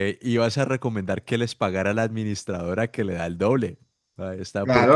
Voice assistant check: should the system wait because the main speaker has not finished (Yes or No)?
No